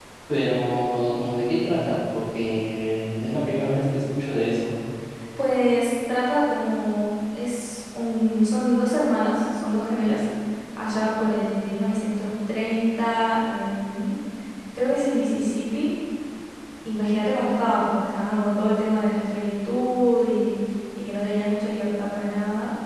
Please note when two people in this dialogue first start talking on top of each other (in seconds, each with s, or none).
none